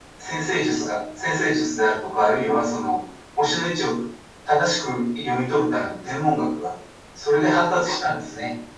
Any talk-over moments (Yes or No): No